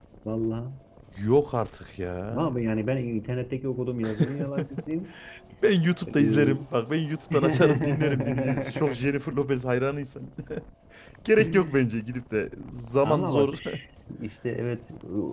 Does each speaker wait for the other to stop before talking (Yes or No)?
No